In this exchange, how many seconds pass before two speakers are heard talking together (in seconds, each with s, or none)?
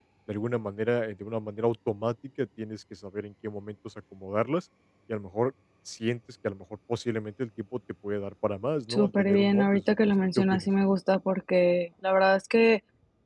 8.9 s